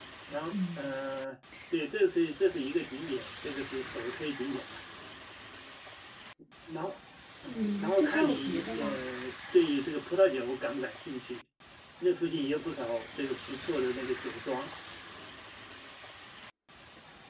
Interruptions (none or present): present